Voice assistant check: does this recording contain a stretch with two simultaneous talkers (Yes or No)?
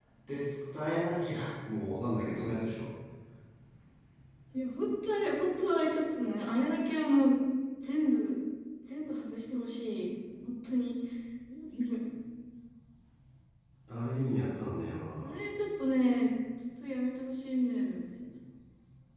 No